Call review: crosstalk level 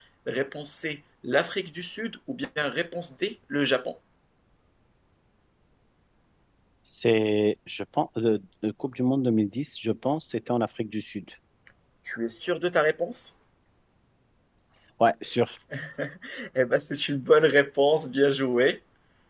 none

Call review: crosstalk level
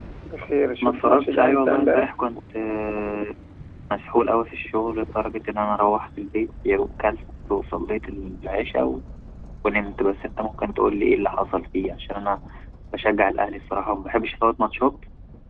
present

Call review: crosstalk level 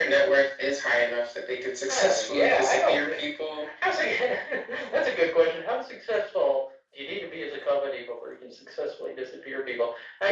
present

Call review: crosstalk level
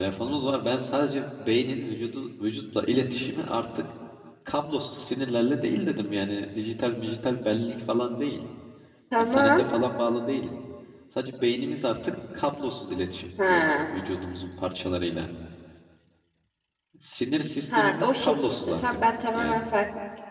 present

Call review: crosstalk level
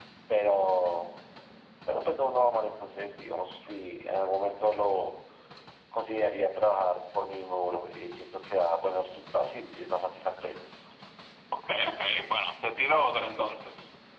none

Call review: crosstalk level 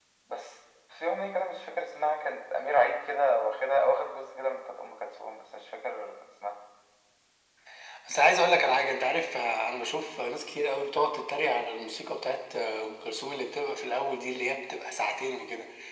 none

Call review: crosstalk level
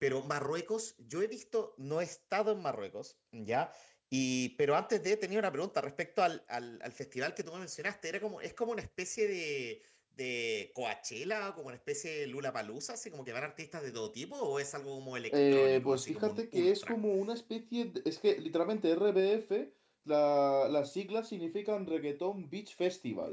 present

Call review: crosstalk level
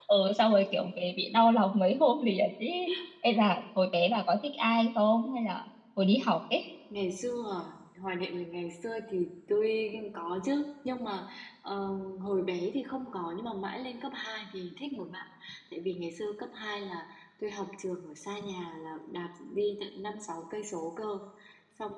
none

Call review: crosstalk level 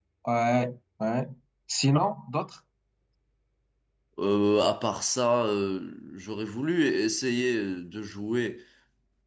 none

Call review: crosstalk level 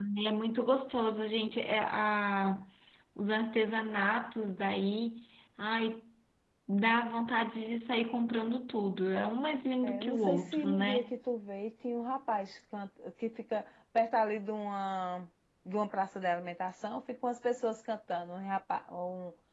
present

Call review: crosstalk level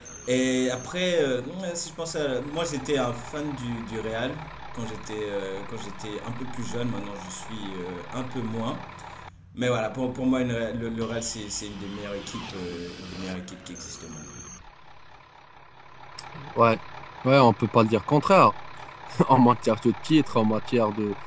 none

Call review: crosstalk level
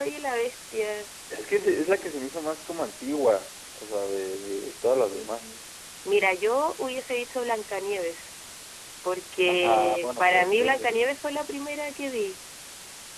present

